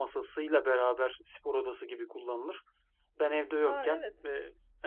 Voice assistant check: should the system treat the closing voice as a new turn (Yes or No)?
No